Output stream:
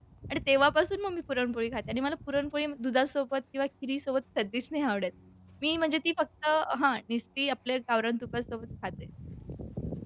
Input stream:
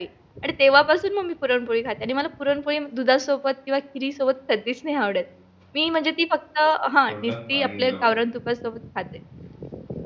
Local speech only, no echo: तोंडात पाणी आलं बघा.

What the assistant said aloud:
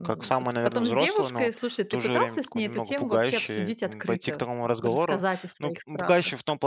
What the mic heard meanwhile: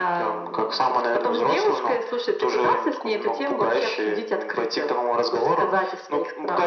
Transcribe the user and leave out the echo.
none

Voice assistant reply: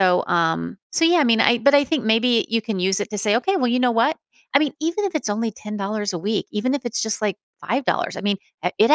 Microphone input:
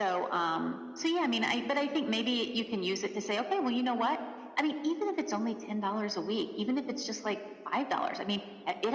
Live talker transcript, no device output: none

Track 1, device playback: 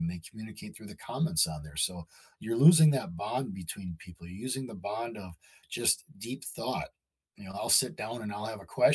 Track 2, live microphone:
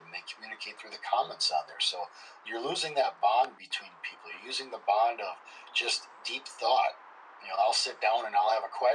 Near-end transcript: none

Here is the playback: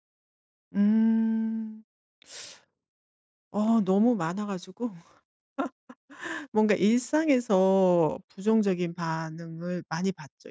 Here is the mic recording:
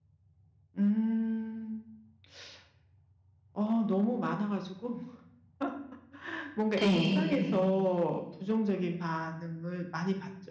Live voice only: 네.

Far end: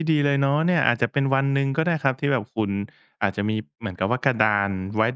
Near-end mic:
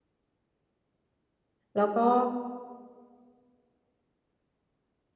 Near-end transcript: แล้วก็

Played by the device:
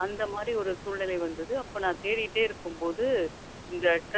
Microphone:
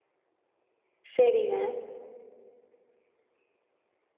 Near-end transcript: சரிங்க.

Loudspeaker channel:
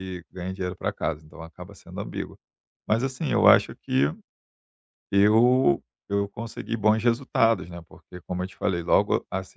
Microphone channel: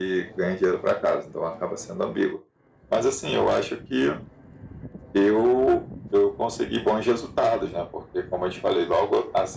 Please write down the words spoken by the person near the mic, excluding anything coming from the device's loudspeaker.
none

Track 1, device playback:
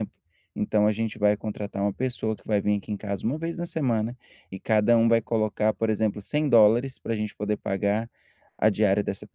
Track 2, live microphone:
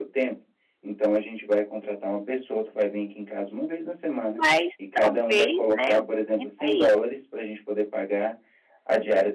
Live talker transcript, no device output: Mas talvez, né, eu nunca tentei isso,

